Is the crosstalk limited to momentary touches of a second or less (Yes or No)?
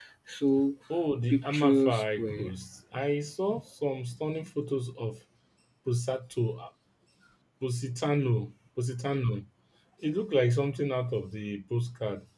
No